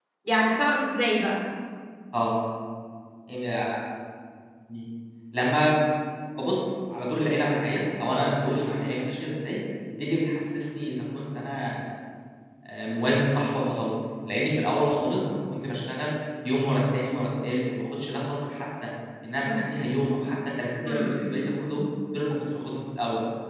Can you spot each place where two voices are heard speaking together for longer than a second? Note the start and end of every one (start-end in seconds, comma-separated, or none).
none